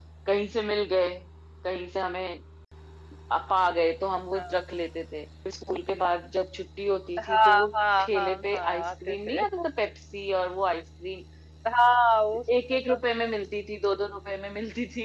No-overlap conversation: No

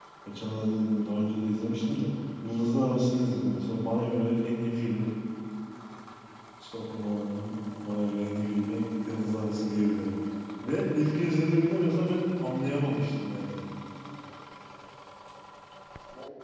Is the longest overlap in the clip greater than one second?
No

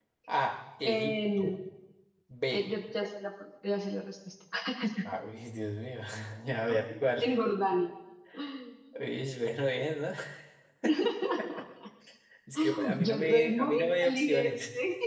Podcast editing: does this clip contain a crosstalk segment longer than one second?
Yes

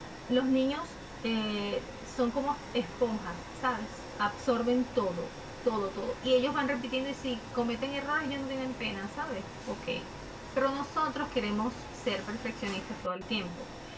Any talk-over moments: No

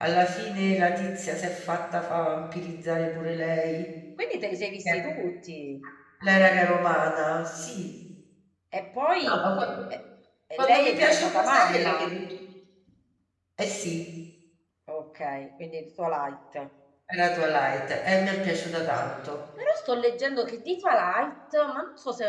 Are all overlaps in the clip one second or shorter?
No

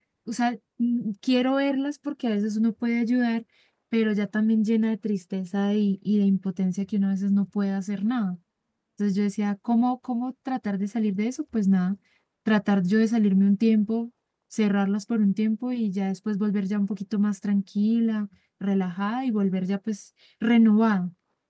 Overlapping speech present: No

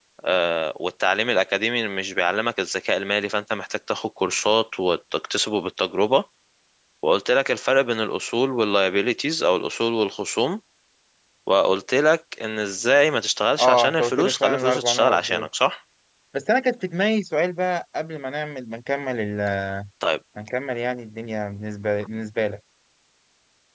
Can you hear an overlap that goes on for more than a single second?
Yes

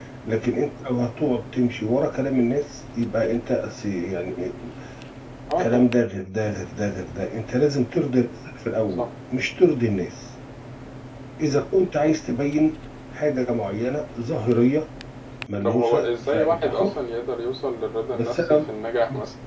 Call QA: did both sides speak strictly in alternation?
No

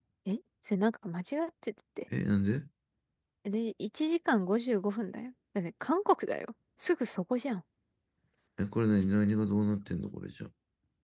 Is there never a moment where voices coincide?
Yes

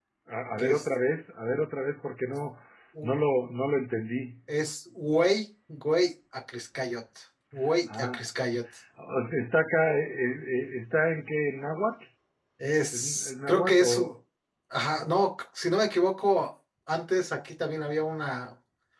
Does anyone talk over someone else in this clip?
Yes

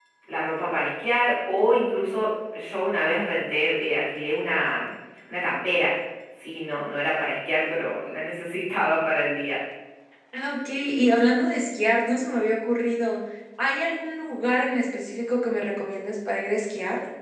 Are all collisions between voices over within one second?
Yes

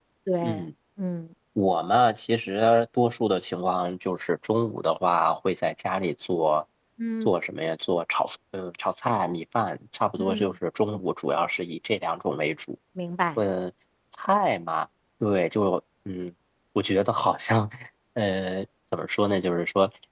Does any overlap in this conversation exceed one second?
No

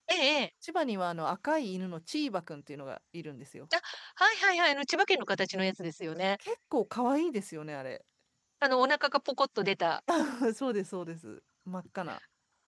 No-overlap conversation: Yes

